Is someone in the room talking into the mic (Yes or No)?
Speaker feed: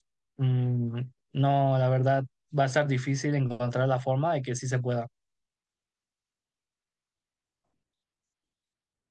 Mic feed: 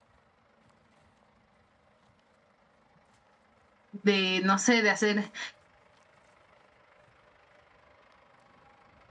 Yes